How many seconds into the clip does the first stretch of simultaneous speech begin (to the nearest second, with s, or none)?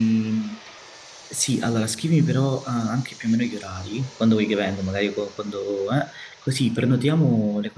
none